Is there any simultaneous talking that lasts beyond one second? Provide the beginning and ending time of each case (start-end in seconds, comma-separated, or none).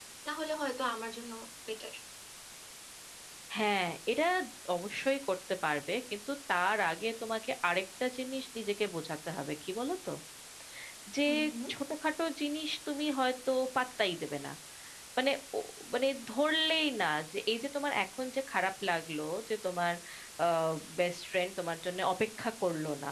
none